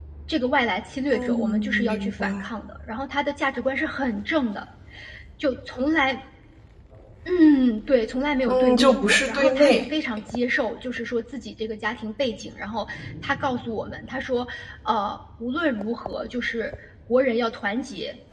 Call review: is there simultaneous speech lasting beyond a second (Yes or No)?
Yes